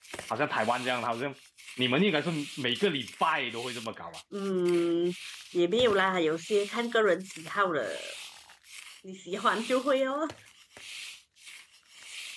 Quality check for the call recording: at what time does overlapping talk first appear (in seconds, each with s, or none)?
none